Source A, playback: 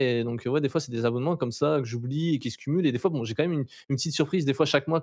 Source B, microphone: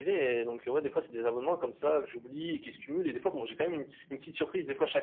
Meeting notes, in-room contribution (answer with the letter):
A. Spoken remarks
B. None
B